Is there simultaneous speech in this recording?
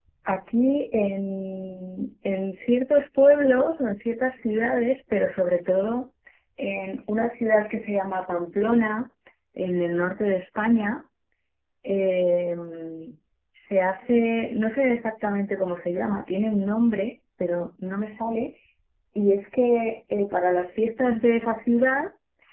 No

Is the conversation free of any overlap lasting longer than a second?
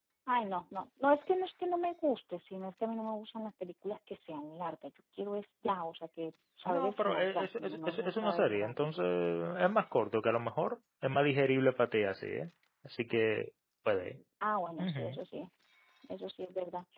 No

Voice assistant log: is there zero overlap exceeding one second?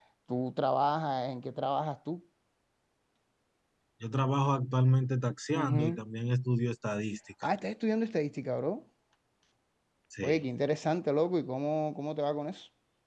Yes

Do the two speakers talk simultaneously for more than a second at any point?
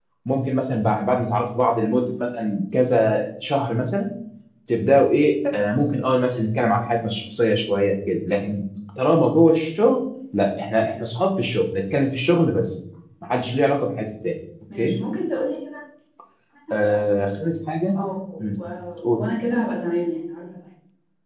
No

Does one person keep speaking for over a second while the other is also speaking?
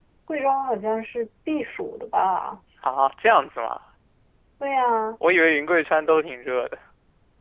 No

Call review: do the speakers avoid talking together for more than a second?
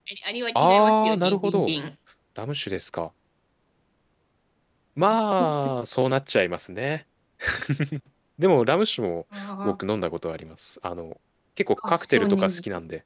No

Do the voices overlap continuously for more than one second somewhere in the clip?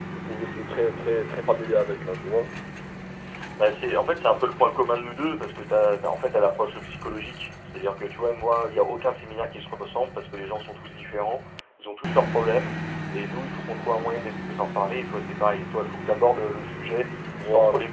No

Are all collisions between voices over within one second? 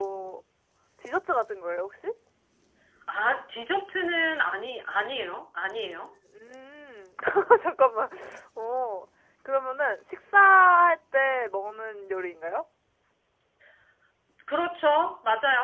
Yes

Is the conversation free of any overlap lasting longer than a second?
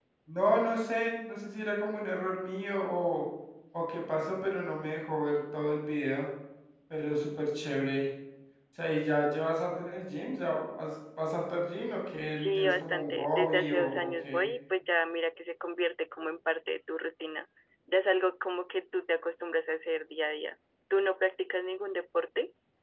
No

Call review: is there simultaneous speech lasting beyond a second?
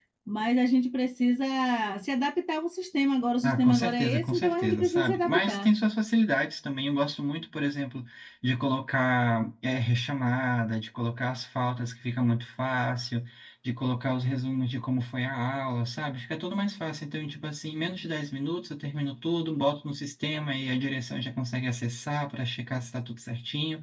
Yes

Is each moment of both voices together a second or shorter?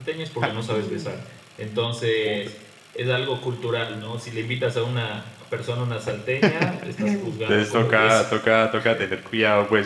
No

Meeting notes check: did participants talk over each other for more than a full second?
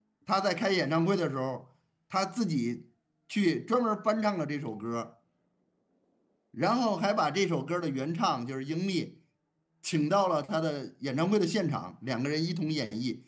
No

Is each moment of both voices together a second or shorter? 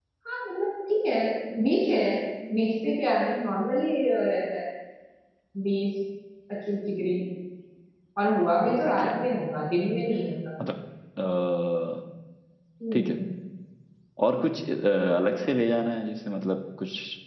Yes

